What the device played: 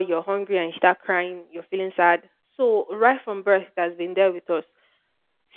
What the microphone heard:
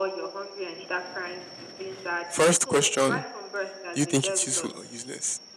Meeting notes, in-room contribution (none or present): present